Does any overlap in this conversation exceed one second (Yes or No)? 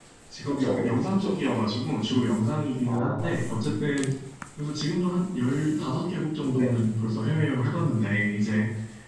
Yes